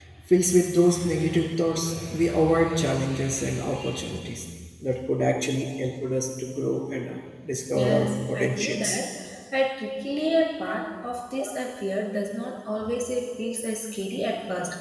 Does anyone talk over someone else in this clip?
Yes, from 7.7 s

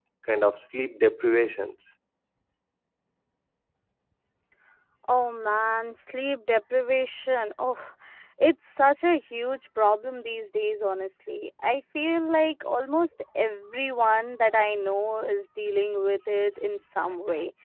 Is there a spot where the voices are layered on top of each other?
No

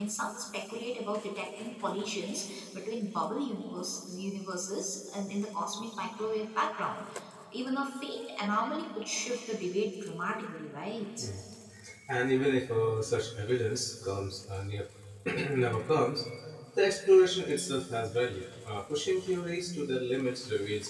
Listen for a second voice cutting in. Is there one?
No

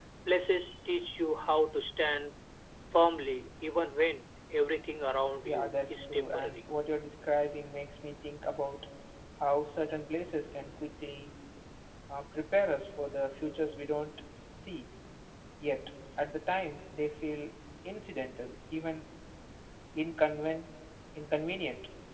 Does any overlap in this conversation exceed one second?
Yes, from 5.4 s

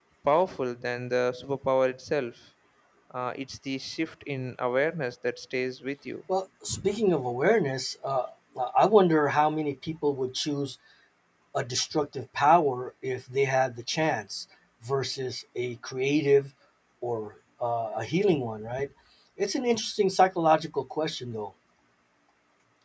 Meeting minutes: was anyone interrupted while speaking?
No

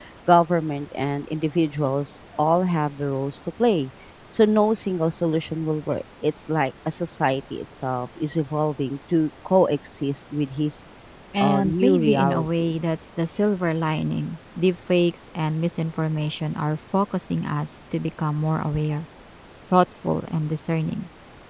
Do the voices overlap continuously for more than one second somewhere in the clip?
Yes, from 11.4 s

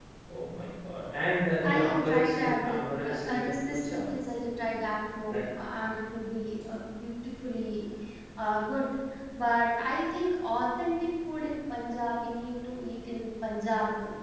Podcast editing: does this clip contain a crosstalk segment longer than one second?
Yes, from 1.6 s

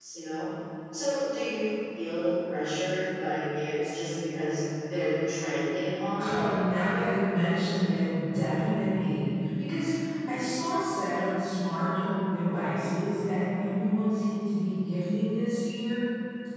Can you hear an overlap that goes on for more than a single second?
No

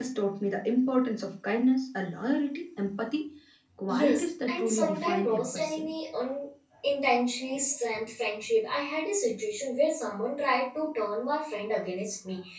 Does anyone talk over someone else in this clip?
Yes, from 3.9 s

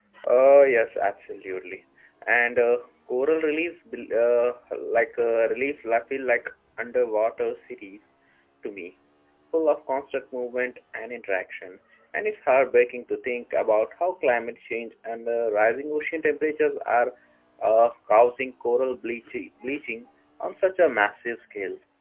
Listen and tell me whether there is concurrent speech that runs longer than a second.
No

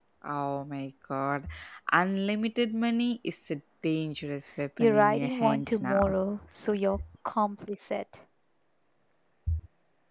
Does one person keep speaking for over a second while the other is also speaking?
Yes, from 4.8 s

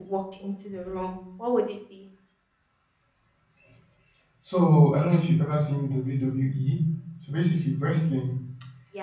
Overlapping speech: No

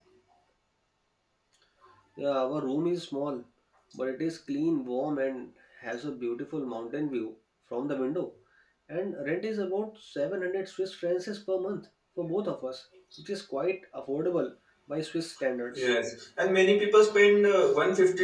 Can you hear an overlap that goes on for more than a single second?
No

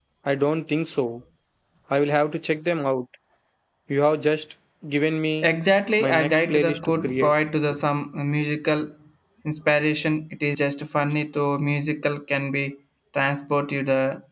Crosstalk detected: Yes, from 6.0 s

